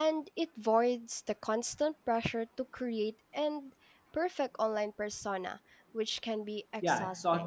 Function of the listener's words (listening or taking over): taking over